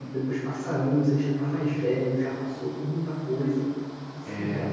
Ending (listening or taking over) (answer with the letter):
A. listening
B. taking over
A